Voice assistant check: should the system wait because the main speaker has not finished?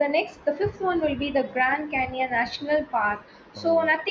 Yes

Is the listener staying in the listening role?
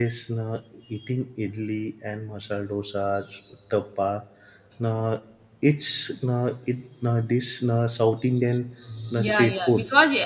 No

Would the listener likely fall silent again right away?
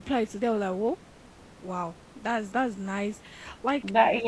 Yes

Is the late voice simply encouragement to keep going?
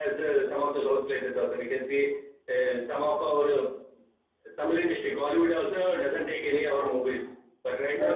Yes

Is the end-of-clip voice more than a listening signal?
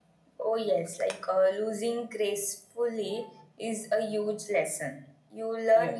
No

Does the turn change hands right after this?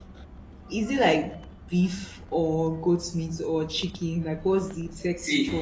Yes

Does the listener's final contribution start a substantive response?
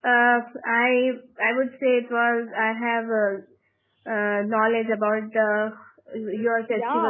Yes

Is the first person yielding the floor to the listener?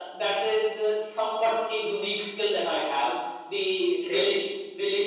No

